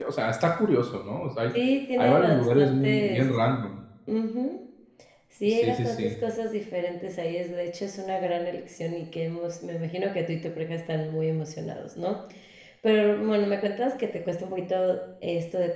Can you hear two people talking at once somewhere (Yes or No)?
Yes